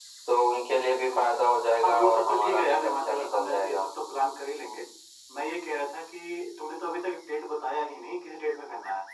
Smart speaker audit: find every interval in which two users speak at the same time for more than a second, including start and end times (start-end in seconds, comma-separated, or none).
1.8-3.8